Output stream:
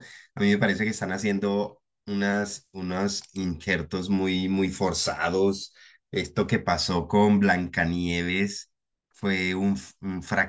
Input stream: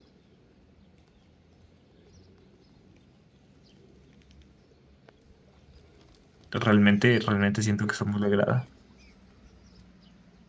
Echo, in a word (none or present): none